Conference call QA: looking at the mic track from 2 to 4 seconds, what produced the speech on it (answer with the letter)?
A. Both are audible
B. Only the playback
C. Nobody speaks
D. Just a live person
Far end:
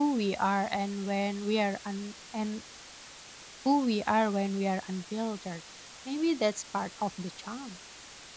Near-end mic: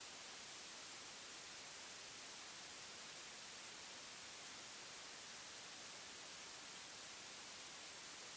C